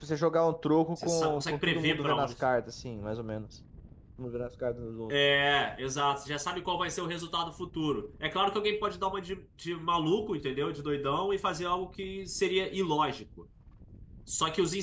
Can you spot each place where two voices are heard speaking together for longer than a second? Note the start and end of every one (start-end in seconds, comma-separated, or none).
1.0-2.3